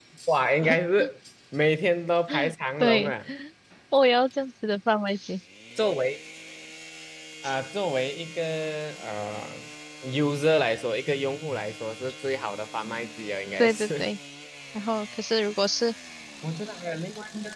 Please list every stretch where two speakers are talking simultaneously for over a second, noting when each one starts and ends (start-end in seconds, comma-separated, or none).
none